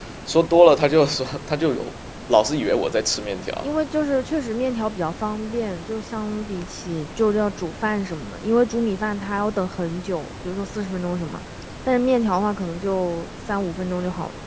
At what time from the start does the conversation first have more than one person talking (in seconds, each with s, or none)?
none